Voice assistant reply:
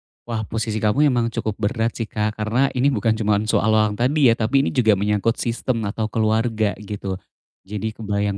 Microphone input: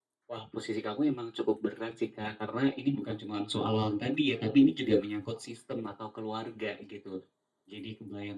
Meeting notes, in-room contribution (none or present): none